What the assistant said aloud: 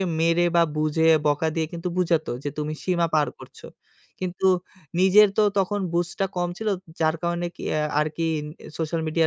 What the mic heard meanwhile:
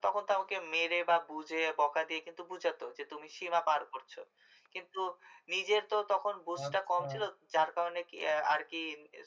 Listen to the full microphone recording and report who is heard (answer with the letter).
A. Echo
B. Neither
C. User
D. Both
D